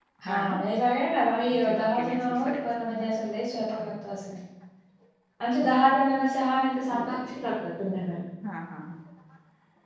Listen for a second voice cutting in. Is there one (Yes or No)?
Yes